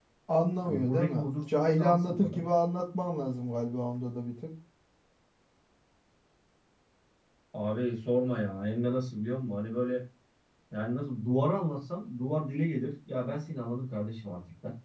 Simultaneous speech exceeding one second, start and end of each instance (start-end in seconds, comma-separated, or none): 0.6-2.4